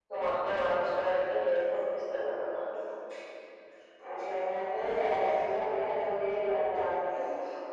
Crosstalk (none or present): none